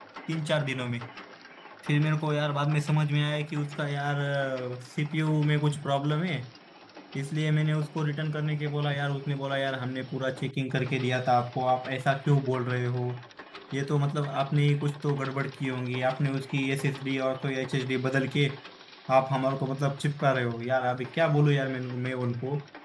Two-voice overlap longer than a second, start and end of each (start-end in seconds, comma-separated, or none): none